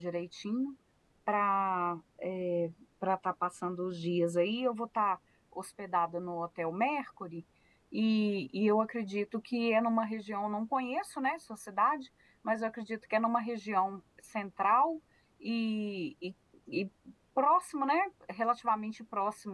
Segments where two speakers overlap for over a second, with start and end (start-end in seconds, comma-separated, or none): none